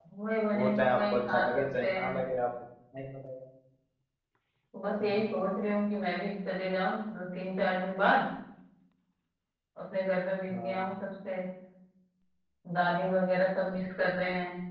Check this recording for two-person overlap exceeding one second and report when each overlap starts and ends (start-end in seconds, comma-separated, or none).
0.5-2.1